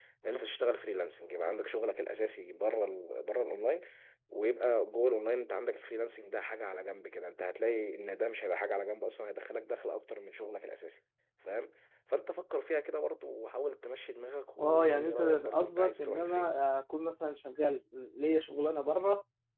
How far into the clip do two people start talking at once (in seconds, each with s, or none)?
14.6 s